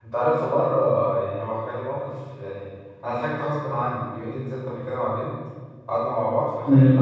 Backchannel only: Yes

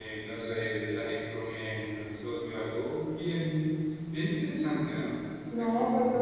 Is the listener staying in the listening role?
No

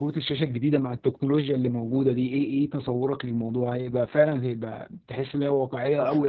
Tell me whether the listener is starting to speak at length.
No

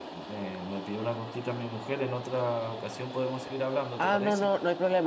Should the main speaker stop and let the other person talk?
Yes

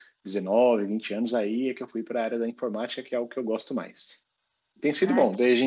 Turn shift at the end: No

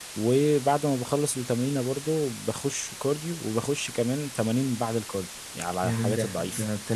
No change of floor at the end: No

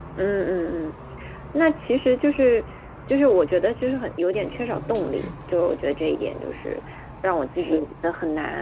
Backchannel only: Yes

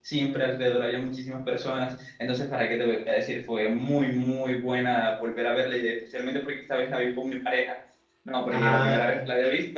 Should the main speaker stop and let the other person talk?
No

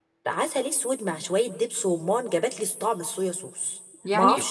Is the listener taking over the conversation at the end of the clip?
Yes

